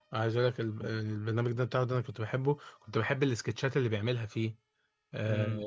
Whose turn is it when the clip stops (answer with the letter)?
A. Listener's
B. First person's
A